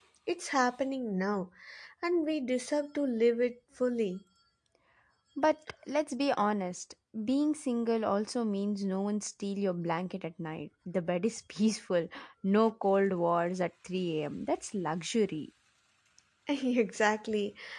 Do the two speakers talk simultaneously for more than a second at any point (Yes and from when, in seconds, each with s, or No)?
No